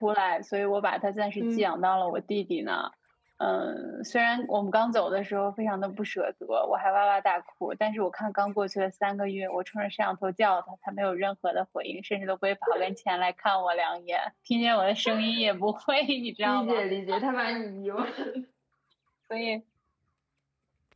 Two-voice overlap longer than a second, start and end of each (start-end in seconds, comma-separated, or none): none